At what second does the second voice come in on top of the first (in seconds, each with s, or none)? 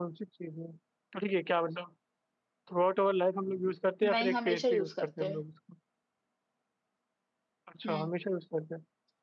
4.0 s